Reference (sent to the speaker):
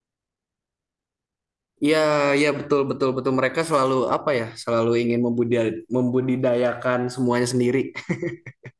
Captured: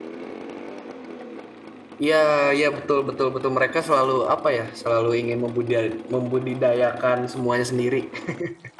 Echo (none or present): present